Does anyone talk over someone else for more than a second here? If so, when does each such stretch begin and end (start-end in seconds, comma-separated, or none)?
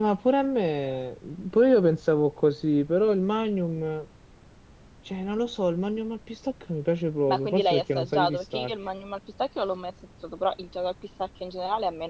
7.3-8.7